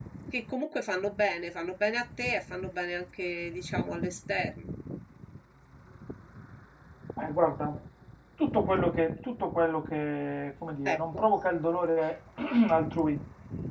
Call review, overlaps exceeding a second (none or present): none